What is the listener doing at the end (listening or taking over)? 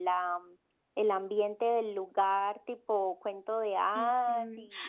taking over